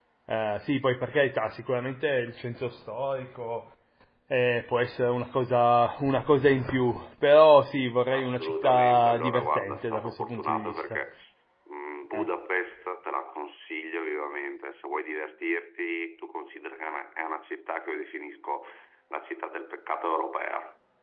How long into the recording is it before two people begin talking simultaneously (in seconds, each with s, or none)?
8.1 s